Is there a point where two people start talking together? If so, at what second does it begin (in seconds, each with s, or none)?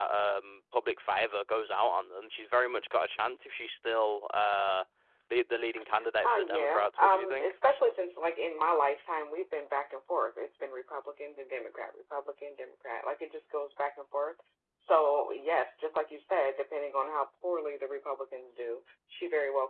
6.2 s